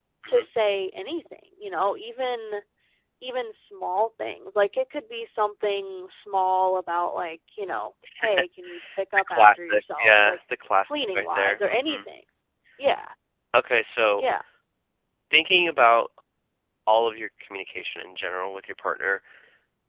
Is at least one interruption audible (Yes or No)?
Yes